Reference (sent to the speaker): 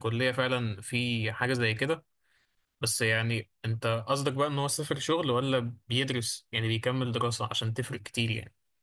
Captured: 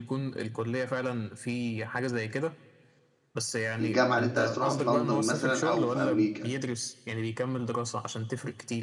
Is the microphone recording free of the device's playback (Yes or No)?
No